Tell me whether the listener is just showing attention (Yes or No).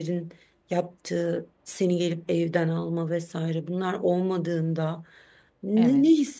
Yes